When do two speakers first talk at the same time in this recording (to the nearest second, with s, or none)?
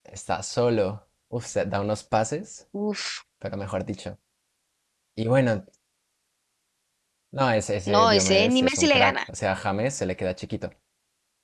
8 s